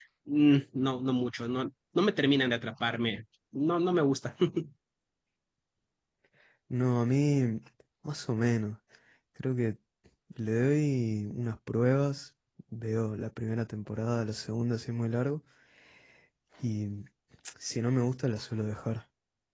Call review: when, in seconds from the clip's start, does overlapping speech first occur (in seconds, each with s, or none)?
none